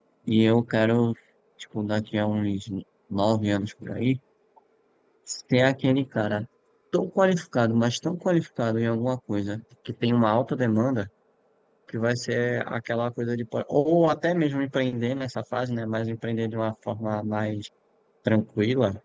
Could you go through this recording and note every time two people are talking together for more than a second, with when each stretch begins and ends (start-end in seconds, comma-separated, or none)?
none